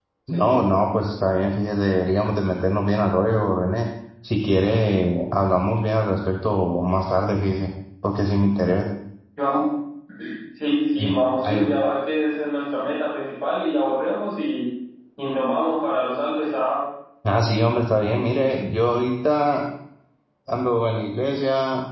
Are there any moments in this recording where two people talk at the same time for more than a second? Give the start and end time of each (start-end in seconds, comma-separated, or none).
none